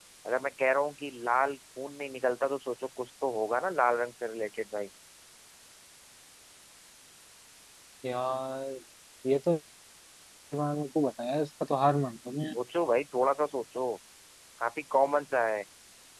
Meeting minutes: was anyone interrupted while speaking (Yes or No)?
No